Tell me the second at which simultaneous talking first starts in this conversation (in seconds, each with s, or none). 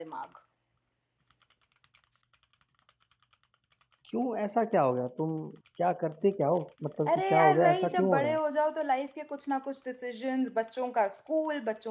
7.1 s